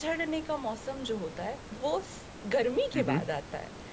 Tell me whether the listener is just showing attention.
Yes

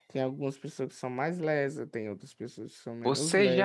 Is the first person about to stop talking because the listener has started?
Yes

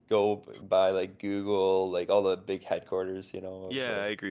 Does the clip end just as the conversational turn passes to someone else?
Yes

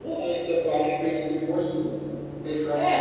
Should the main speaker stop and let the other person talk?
Yes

